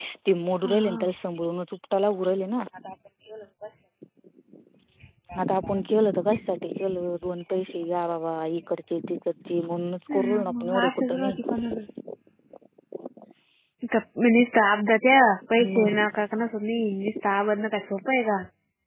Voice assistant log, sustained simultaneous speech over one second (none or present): present